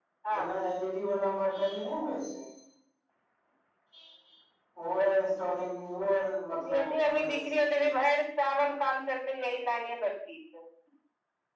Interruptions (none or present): present